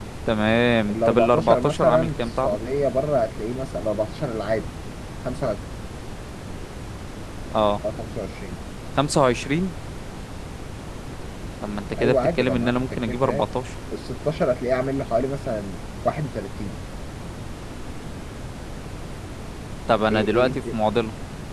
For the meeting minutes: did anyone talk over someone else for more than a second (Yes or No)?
Yes